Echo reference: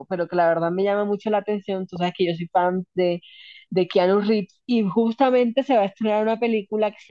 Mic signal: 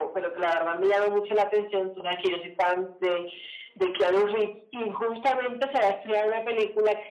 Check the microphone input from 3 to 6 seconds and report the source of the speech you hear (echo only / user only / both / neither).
echo only